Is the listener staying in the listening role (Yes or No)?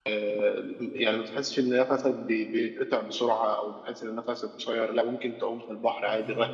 Yes